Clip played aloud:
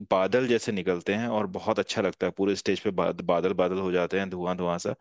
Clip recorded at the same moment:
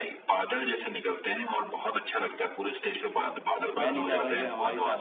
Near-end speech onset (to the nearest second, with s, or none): 4 s